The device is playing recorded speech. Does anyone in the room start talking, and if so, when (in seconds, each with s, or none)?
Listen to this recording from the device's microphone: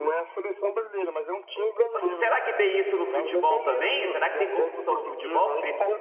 1.9 s